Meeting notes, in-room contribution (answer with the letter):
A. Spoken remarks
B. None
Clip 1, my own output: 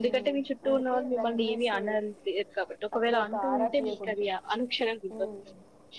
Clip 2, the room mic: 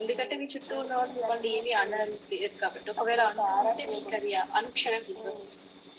B